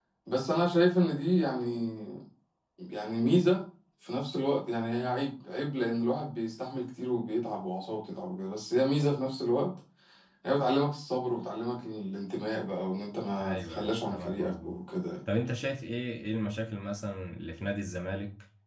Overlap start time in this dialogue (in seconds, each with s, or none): 13.4 s